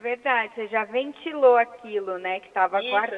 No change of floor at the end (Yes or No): No